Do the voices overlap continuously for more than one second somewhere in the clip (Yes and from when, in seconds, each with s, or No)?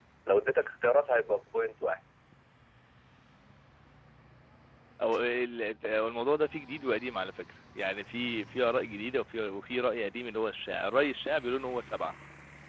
No